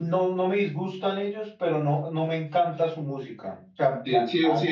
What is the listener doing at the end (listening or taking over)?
taking over